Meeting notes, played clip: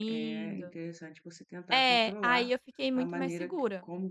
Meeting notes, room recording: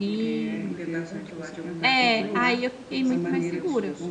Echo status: present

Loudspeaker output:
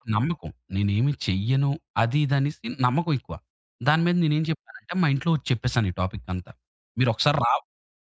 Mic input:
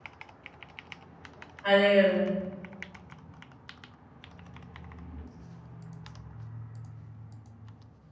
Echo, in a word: none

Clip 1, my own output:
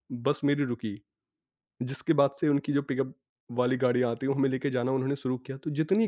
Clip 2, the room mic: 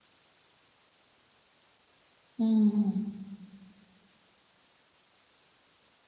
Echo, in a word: none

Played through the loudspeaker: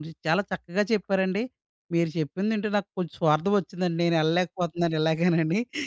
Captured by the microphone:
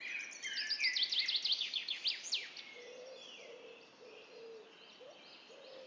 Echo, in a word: none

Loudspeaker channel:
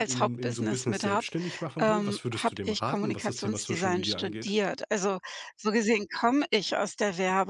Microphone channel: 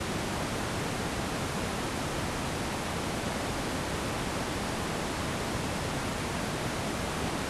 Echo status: none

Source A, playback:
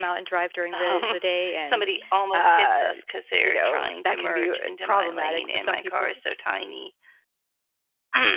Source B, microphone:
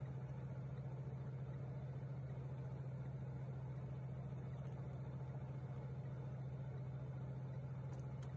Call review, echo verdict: none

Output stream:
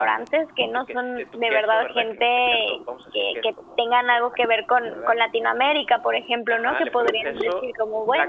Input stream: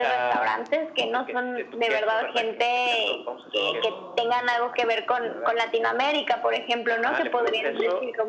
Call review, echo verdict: present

